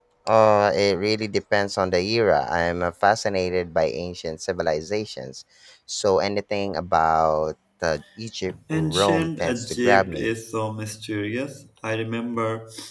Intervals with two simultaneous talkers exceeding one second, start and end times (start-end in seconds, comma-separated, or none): 8.7-10.3